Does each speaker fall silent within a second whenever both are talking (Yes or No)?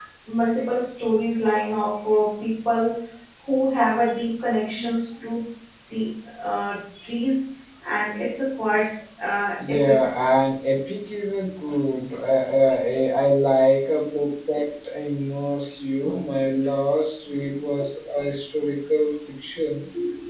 Yes